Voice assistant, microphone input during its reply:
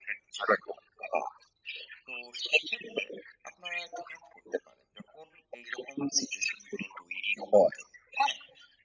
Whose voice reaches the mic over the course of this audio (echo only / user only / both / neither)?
echo only